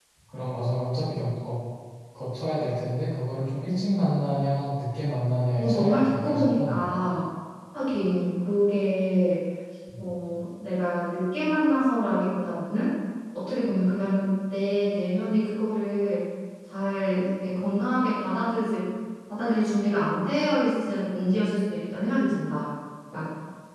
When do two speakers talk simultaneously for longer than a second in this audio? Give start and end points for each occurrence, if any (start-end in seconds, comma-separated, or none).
5.6-6.9